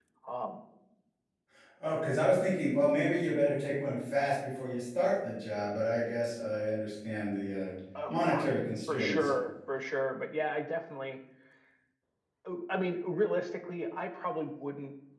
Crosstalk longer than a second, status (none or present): none